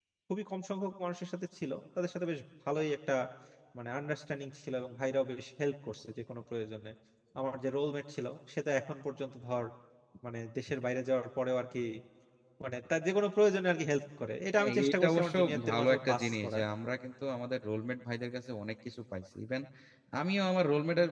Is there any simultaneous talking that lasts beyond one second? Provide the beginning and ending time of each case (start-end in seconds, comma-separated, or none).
14.6-16.6